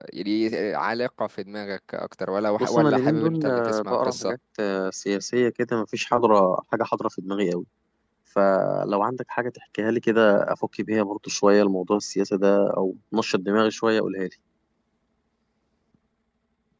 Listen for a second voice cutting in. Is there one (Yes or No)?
Yes